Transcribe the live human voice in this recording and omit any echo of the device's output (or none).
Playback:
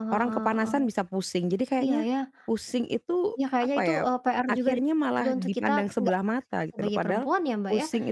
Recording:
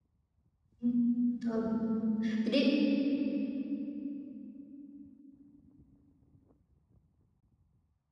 Mmm. betul betul, jadi